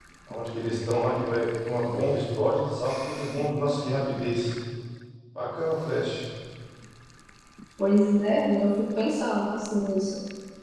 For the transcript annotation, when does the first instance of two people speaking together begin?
none

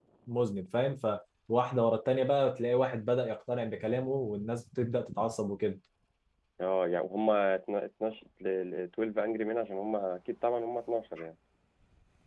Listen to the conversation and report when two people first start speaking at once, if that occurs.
none

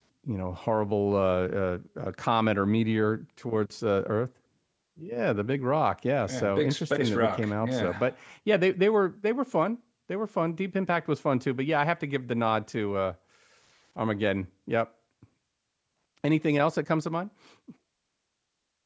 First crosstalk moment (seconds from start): 6.2 s

